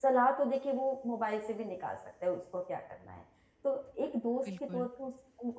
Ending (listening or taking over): listening